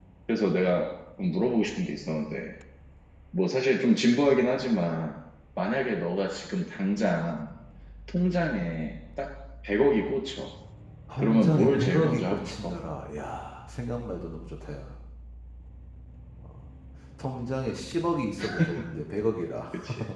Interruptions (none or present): present